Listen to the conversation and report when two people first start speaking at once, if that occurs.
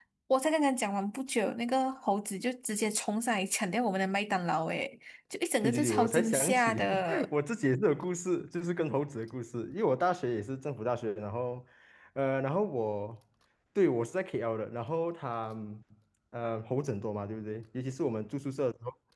5.6 s

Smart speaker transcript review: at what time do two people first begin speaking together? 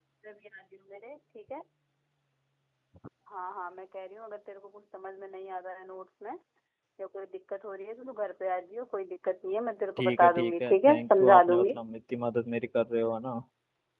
10.0 s

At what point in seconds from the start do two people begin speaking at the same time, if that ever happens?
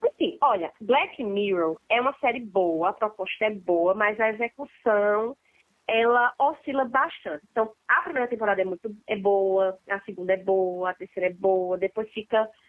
none

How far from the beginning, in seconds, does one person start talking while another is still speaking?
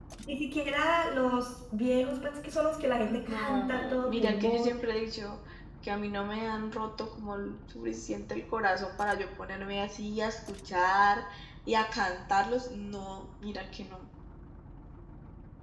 3.1 s

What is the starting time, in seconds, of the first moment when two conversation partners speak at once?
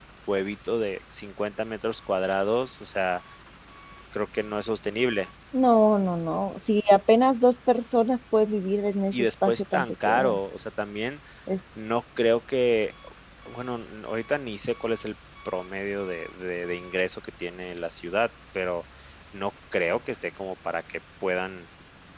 9.1 s

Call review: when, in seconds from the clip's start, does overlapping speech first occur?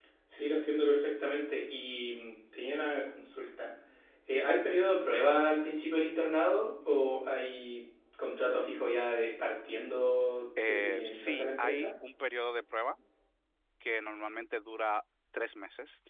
10.6 s

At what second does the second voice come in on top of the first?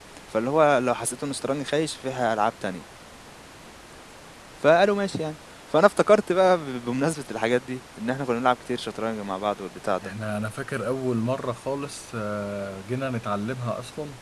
none

